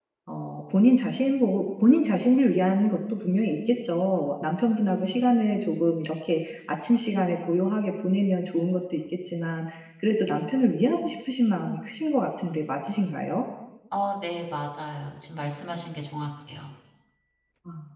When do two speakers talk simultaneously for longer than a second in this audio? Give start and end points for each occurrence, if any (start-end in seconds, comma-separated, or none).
none